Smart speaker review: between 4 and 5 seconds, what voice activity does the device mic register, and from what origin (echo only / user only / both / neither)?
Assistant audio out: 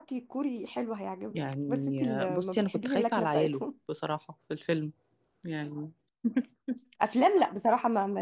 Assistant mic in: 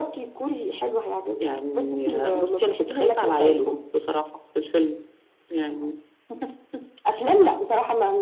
echo only